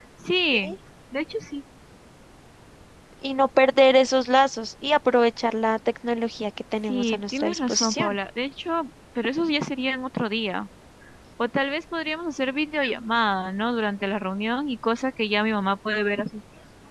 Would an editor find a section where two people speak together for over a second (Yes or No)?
Yes